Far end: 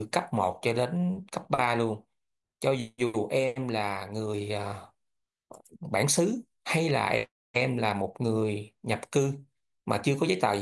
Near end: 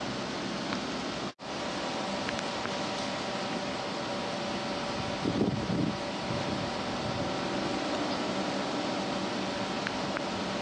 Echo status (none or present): none